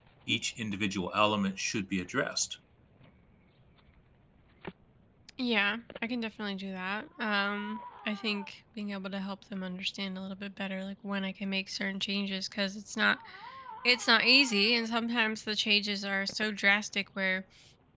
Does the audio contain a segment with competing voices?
No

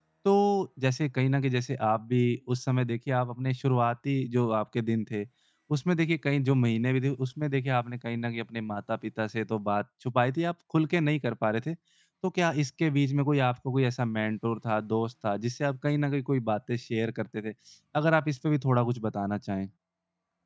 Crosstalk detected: No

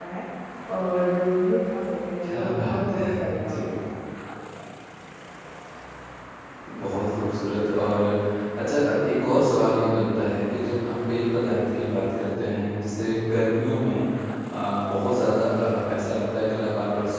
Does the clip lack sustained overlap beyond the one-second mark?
No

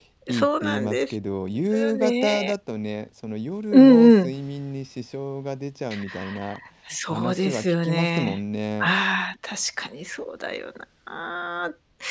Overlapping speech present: Yes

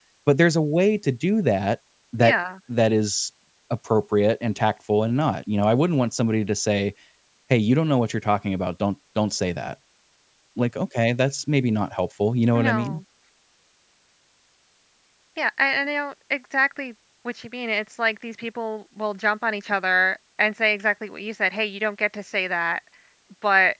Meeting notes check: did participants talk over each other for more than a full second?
No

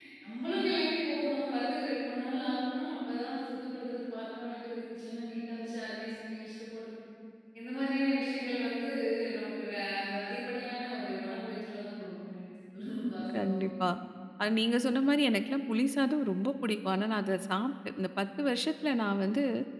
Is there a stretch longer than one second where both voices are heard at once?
No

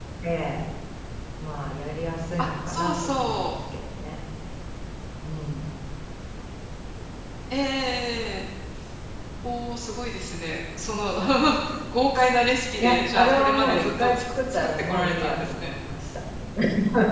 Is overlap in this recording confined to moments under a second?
No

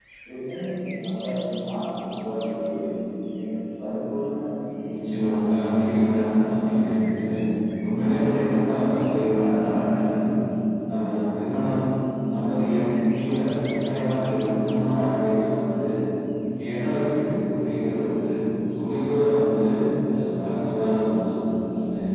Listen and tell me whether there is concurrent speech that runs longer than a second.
No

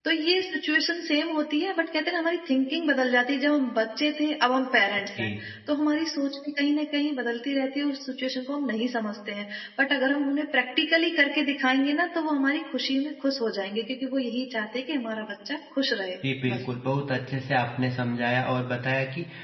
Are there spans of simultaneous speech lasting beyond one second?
No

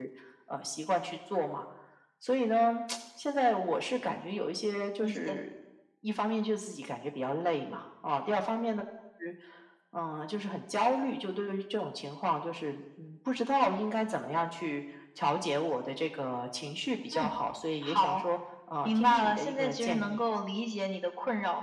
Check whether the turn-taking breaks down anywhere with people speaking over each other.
Yes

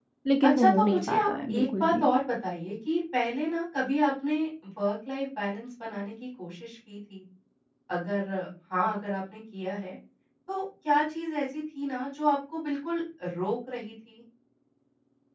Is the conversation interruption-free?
No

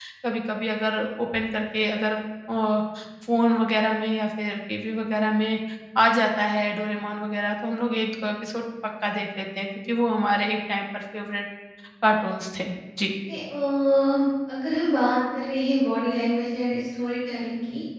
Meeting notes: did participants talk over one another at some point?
No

